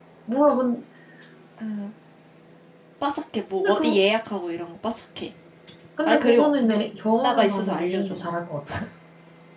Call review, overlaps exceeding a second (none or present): present